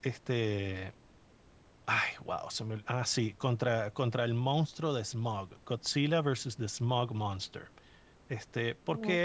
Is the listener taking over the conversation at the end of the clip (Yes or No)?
No